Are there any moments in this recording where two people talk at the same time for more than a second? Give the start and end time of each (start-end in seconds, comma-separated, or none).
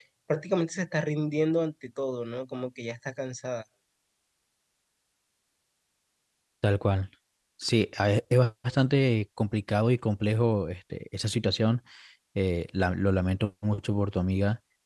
none